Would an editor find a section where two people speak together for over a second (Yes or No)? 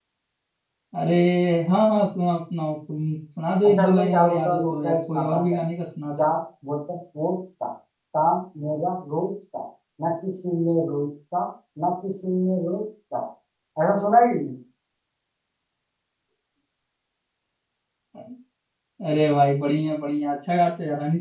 Yes